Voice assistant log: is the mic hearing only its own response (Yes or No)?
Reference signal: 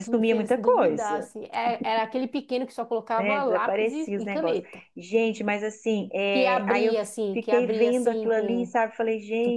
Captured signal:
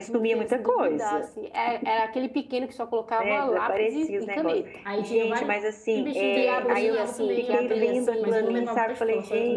No